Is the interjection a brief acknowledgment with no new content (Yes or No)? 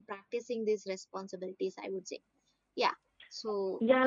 No